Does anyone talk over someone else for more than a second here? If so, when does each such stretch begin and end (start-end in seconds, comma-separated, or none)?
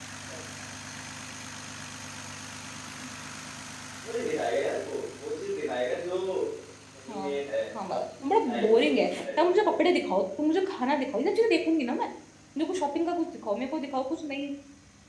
8.4-9.8